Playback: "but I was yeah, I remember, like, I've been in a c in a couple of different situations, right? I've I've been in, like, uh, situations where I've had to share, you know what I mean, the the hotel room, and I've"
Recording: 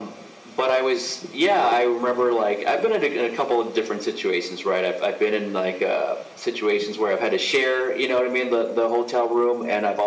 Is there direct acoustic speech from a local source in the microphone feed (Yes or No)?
No